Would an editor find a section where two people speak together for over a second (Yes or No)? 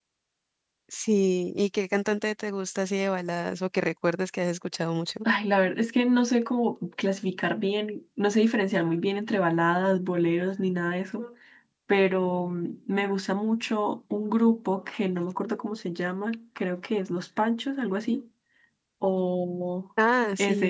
No